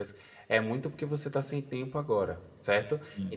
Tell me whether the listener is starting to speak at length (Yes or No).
No